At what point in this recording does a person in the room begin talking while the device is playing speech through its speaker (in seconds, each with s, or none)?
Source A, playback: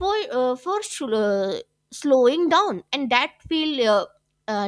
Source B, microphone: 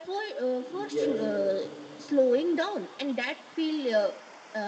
0.6 s